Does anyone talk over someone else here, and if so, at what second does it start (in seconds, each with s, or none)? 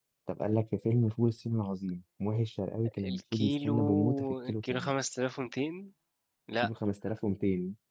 3.0 s